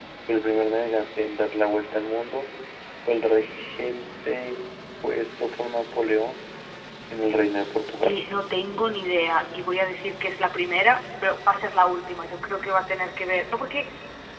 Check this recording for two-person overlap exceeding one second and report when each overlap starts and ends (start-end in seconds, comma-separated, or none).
none